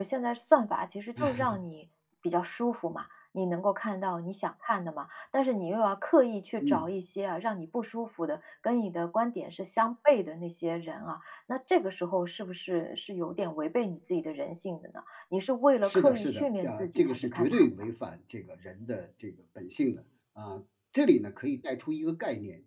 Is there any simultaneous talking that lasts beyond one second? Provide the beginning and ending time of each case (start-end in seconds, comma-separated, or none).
15.8-17.8